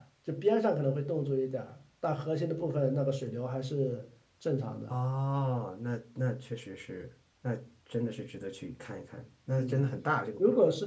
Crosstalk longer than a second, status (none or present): none